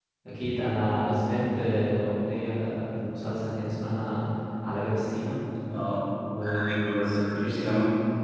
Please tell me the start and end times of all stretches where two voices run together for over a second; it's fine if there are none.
6.4-7.7

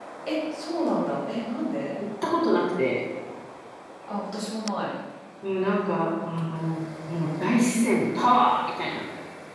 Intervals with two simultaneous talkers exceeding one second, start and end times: none

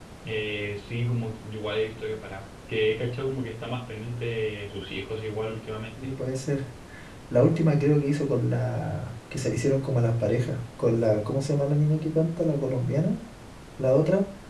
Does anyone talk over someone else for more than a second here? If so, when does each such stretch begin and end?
none

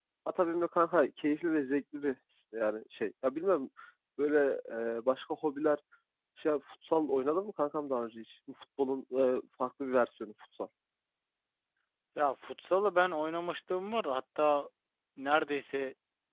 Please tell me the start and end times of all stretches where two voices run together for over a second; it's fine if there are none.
none

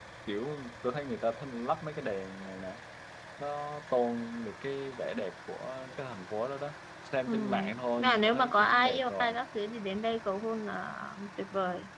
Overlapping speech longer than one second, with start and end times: 8.0-9.4

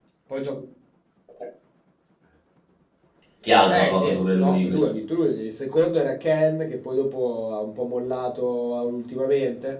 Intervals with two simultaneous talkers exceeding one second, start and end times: 3.7-4.9

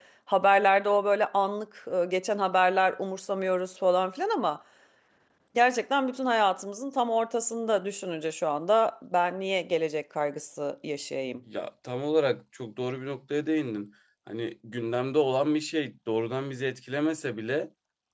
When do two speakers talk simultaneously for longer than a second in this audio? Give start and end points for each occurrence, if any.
none

